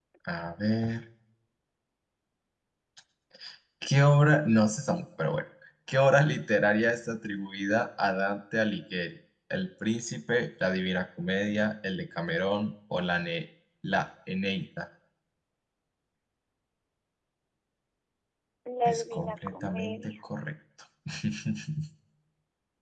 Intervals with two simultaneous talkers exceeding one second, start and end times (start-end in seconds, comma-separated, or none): 18.9-20.2